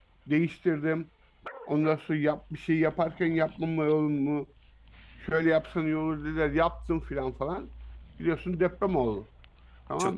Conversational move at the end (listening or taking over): taking over